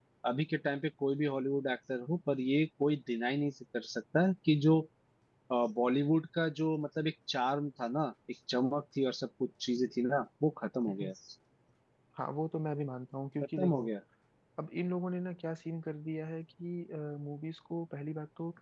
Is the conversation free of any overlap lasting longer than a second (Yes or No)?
Yes